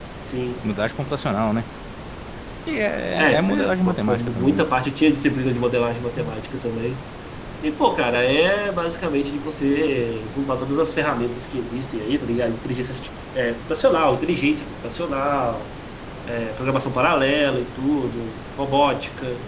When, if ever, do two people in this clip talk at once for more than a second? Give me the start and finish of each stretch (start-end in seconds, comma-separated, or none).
3.4-4.6